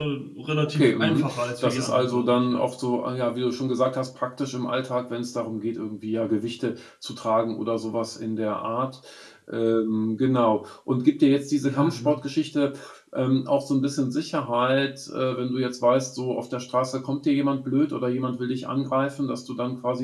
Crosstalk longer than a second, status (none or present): present